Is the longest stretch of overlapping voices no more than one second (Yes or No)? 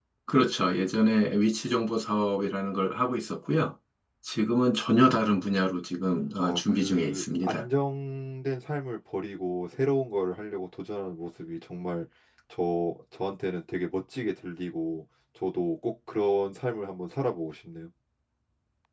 No